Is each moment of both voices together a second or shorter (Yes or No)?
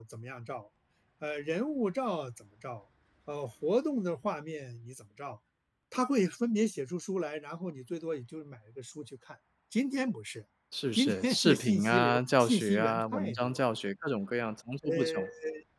No